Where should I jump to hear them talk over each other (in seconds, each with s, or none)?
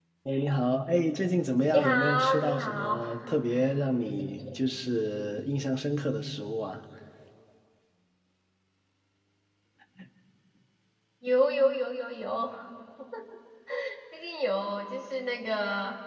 1.7 s